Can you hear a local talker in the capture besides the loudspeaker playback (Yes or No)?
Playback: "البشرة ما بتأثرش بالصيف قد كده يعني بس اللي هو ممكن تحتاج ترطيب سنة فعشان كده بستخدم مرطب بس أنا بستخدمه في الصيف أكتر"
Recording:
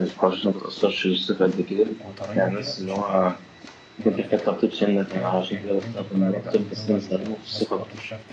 Yes